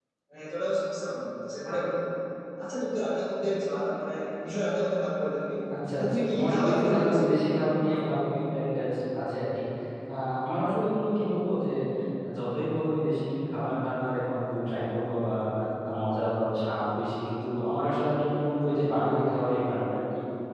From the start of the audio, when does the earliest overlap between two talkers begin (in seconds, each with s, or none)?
5.9 s